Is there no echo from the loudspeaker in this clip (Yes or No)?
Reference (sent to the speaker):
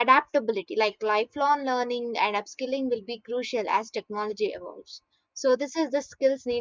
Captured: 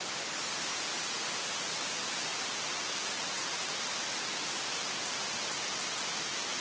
Yes